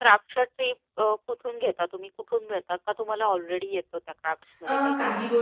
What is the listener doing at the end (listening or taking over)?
taking over